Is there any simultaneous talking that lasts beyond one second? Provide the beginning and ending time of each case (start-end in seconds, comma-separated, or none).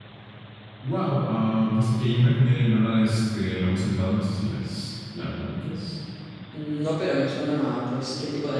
none